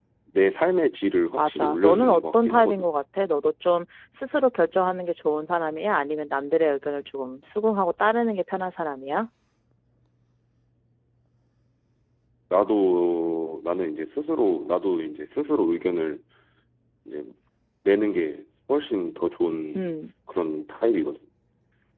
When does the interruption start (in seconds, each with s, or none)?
1.4 s